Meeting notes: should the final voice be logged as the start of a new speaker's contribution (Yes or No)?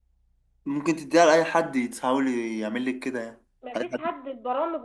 Yes